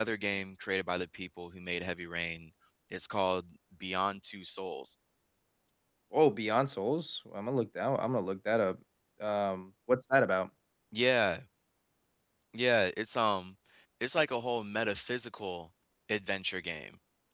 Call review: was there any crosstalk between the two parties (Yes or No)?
No